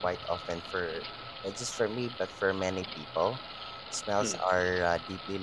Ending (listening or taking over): listening